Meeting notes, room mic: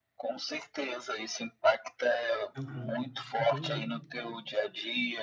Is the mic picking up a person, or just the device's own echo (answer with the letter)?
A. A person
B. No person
A